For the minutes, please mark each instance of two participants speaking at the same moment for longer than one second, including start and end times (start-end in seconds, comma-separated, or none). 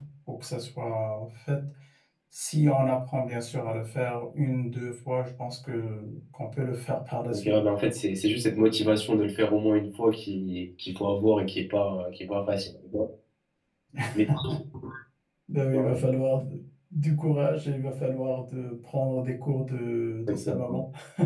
none